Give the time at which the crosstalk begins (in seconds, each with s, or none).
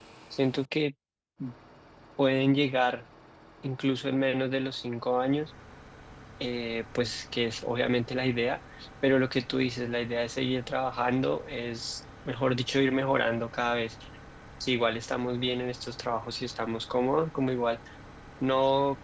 none